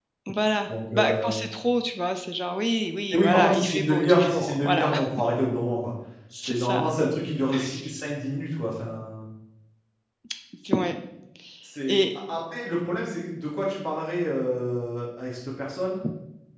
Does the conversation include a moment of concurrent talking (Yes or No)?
Yes